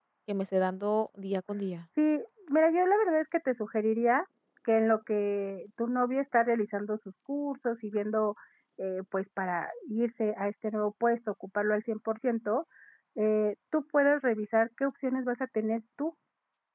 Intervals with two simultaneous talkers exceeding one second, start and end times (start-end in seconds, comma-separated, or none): none